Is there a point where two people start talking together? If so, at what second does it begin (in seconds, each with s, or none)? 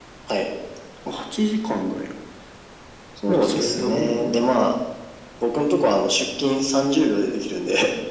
3.3 s